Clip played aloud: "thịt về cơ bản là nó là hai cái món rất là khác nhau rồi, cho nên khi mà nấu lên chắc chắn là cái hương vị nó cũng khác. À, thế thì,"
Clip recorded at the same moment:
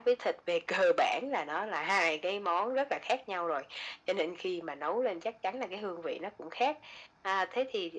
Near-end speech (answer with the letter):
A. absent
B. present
A